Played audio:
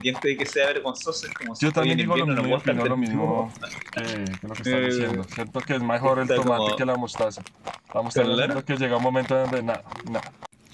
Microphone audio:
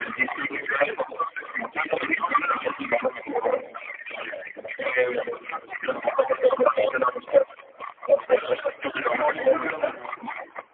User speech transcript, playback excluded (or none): También digo lo mismo.